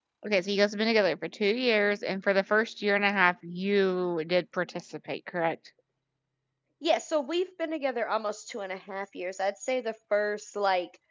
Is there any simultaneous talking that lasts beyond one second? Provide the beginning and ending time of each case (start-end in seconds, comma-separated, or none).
none